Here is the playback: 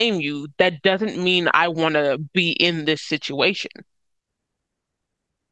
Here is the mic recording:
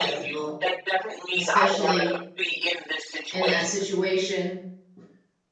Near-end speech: present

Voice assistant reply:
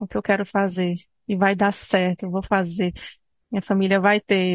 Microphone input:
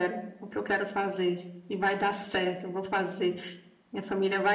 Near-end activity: none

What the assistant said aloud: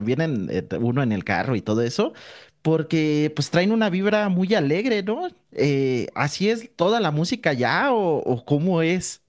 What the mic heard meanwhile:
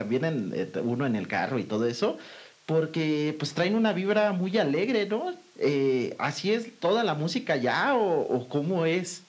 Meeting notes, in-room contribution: none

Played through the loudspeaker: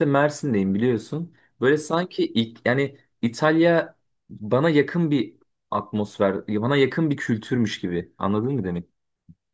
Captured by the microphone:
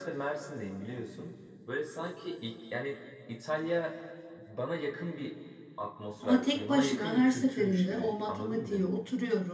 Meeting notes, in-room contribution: present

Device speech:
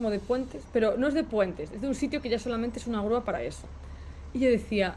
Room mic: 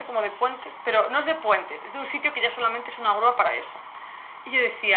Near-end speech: none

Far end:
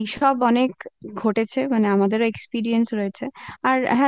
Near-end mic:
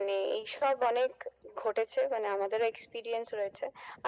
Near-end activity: none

